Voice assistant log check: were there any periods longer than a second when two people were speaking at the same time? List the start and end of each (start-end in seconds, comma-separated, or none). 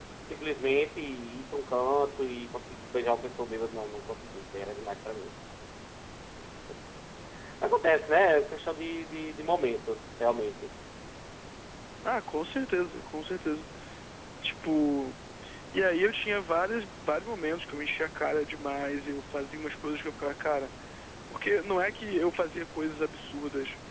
none